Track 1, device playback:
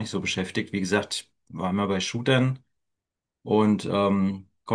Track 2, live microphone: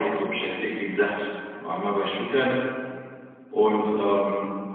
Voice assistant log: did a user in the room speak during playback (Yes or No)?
No